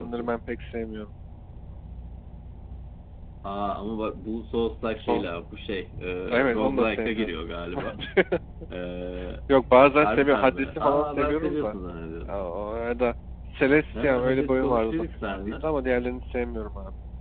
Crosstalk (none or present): present